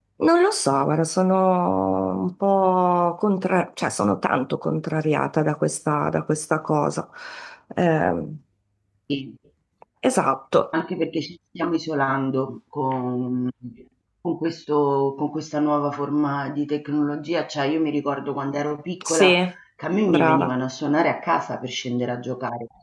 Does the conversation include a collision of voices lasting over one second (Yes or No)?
No